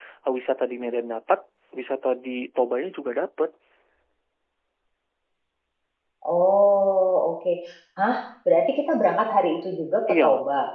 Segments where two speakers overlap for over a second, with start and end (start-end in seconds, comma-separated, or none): none